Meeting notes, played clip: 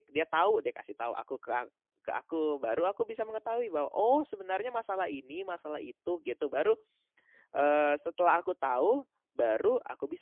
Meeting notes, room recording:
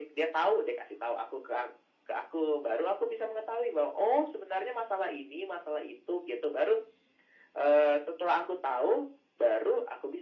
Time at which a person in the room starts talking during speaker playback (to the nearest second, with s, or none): none